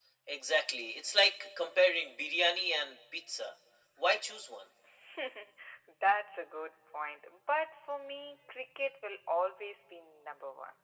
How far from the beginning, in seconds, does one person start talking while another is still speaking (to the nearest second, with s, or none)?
none